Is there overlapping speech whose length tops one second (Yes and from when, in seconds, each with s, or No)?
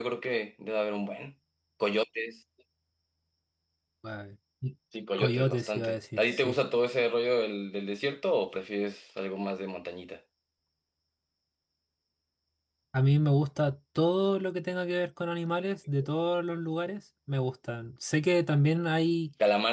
Yes, from 5.2 s